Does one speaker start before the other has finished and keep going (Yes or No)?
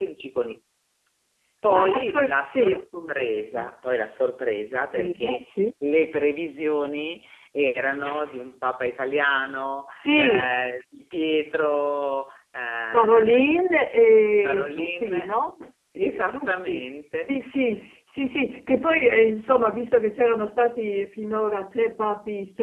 Yes